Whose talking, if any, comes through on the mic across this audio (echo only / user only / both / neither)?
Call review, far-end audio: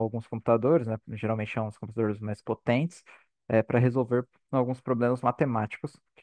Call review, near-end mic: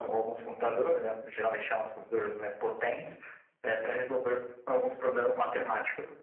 echo only